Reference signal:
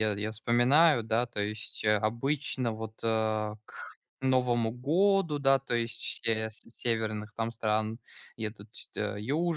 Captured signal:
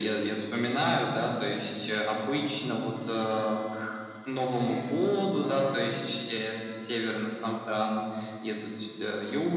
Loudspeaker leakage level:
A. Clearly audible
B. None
A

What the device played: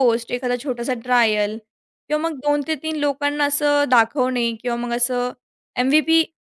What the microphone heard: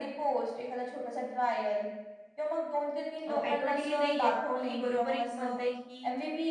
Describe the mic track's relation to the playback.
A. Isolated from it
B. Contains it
B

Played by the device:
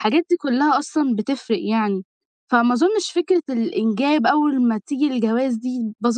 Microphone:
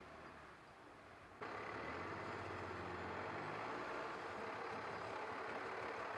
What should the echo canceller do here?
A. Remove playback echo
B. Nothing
B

